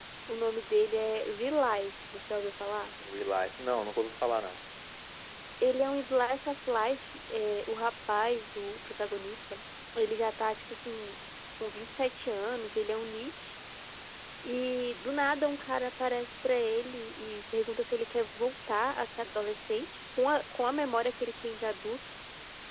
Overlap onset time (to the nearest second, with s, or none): none